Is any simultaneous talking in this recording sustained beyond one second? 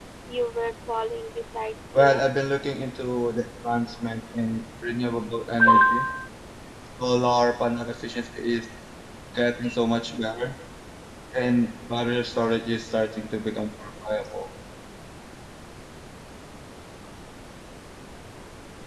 No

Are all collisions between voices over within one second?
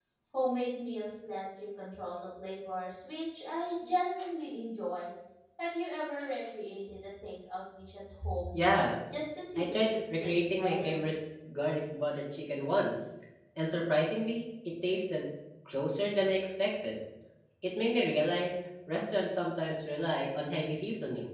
No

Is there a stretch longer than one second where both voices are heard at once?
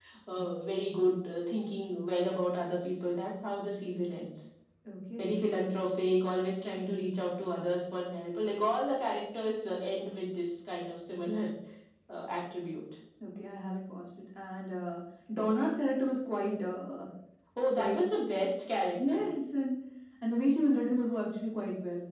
No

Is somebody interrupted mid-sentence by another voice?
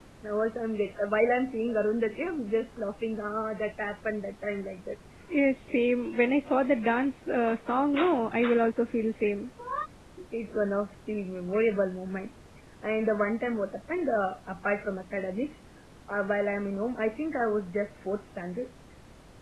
No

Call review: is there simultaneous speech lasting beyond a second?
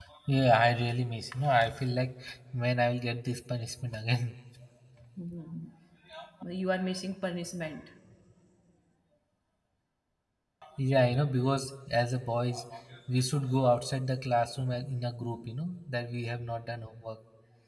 No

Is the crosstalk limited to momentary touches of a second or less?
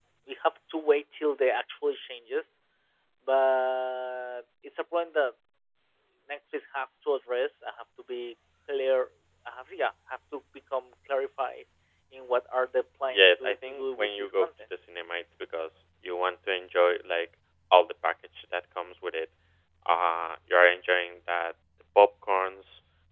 No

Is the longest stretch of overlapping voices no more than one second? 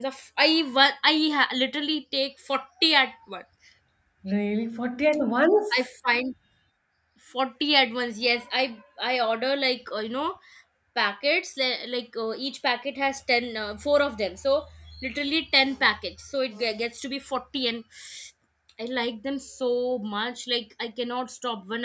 Yes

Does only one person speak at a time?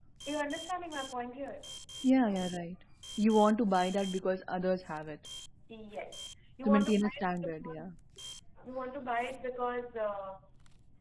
No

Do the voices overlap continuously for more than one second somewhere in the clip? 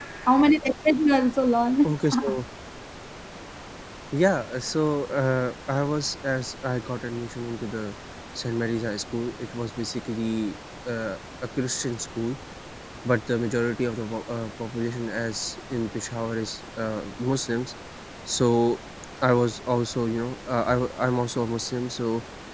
No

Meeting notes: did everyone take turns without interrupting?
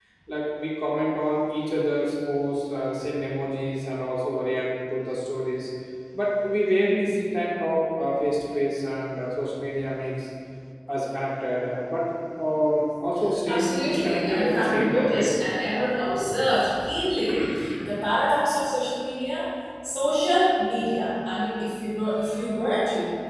No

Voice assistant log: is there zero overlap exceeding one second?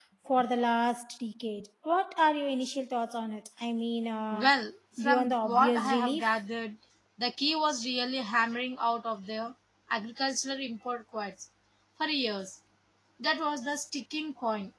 No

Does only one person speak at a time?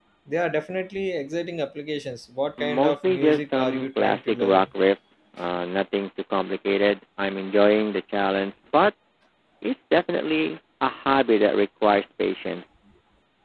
No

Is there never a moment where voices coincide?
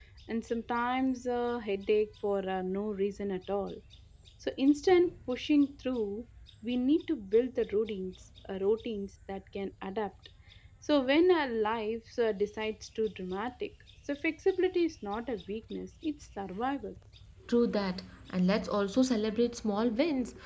Yes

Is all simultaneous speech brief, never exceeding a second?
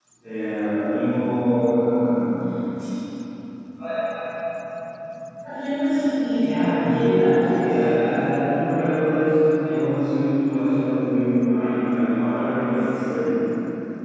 No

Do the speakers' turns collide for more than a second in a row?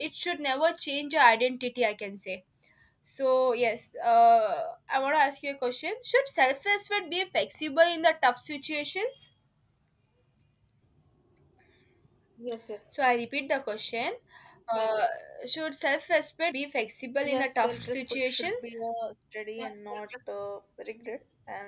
Yes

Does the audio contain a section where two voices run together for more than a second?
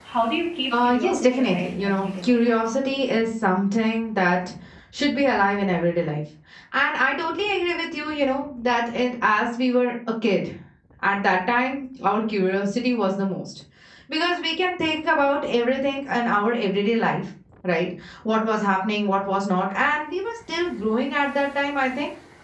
Yes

